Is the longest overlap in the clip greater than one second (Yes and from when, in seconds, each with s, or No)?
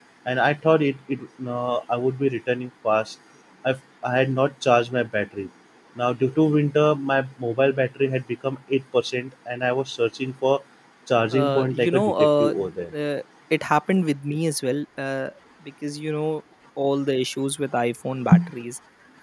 Yes, from 11.3 s